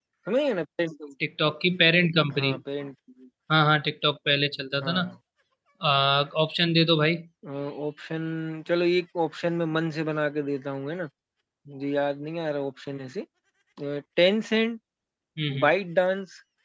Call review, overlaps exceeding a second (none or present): none